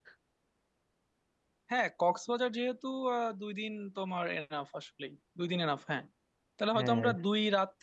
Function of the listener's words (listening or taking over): listening